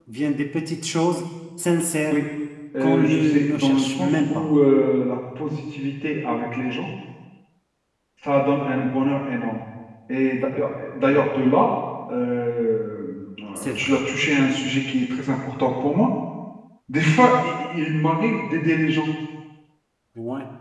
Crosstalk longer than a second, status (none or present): present